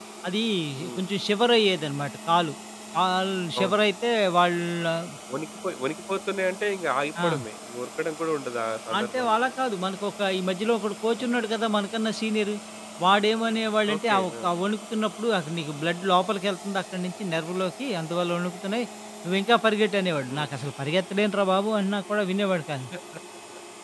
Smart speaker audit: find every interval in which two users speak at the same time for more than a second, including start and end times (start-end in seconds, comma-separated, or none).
none